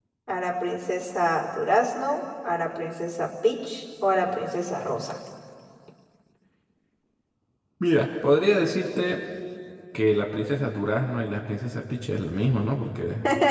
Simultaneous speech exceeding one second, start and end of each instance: none

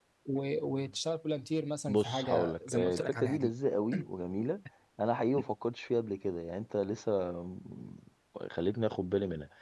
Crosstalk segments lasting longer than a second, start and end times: 1.9-3.5

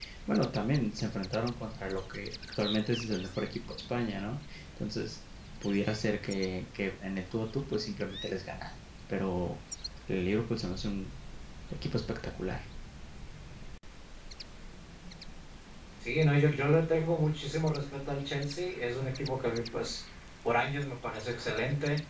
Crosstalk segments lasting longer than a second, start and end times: none

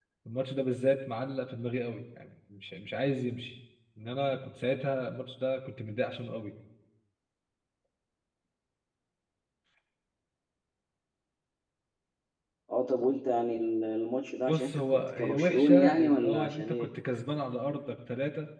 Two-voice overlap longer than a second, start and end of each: 14.5-16.9

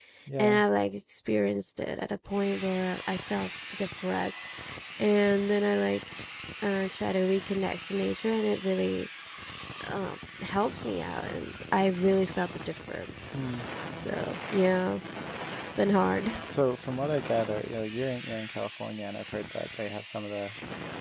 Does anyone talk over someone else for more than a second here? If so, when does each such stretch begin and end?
none

